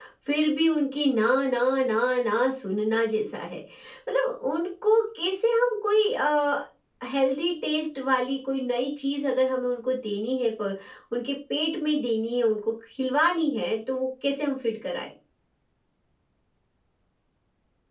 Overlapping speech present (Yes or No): No